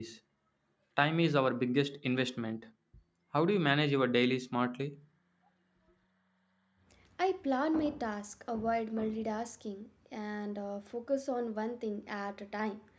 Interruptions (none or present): none